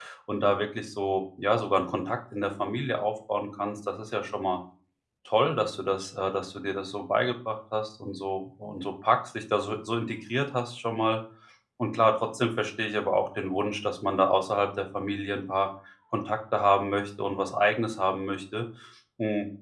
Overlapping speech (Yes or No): No